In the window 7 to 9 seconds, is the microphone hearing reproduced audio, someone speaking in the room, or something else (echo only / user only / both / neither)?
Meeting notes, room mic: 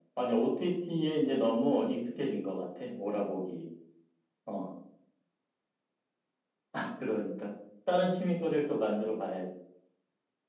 echo only